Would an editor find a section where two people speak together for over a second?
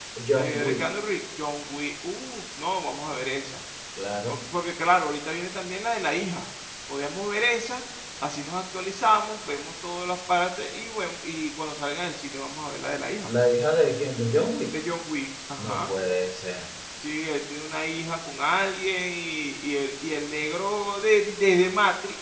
No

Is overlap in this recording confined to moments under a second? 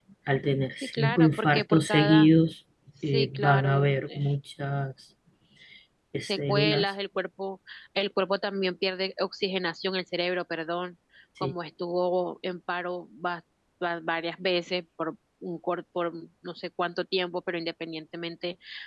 No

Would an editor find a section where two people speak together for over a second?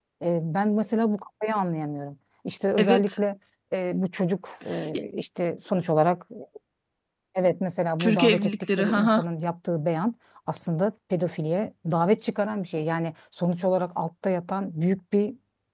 Yes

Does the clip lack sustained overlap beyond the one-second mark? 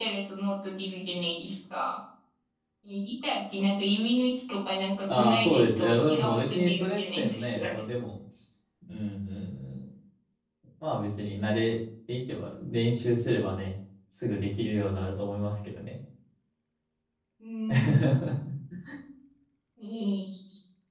No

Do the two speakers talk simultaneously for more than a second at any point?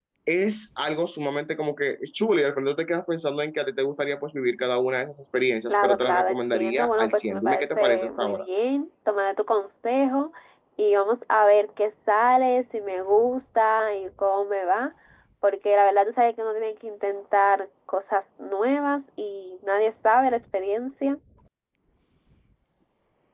Yes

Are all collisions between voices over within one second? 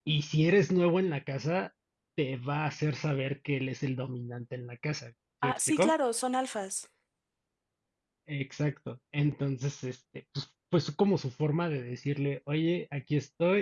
Yes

